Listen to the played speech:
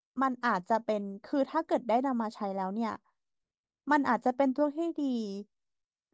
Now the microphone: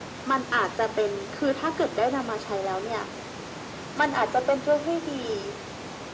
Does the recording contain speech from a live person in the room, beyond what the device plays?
No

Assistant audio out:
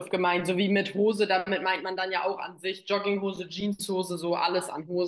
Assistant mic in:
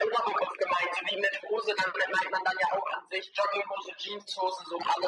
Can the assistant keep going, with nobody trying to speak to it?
Yes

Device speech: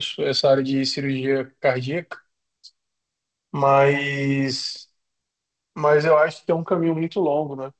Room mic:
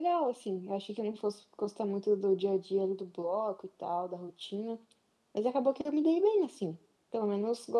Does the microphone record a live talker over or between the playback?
Yes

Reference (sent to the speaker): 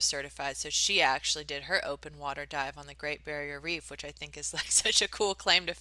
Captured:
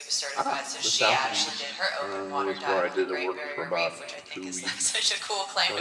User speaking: Yes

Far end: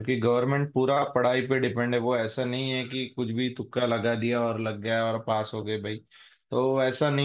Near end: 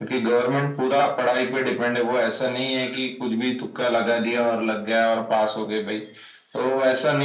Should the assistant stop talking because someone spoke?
No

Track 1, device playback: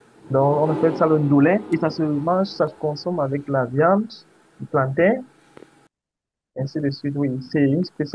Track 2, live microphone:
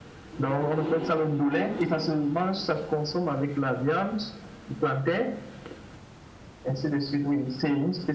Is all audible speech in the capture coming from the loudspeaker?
Yes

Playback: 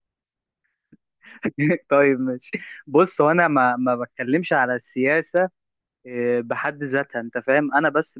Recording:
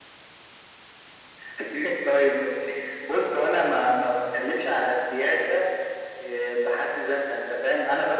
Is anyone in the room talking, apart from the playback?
No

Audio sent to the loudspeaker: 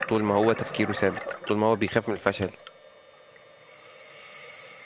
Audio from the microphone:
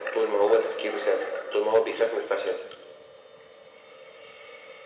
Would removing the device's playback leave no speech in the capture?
Yes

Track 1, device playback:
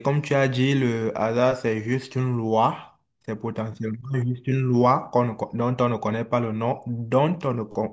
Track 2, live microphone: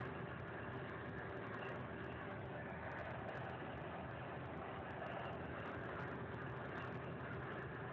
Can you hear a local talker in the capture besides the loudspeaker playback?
No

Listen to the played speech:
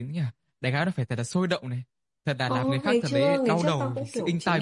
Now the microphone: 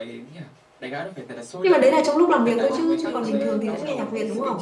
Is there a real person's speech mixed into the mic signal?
Yes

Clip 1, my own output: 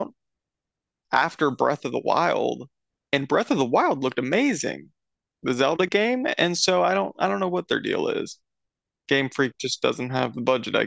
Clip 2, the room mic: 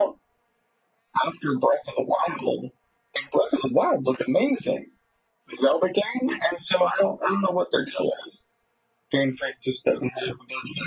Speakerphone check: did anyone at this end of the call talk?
No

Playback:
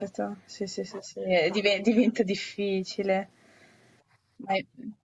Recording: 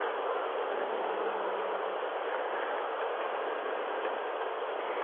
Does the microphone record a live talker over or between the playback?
No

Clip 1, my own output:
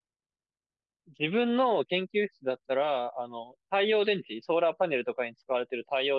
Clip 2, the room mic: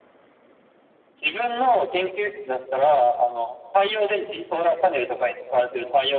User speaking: No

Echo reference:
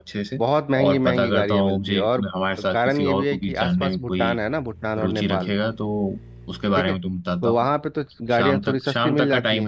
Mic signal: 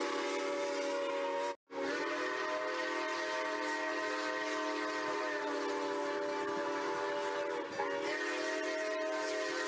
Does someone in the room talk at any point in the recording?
No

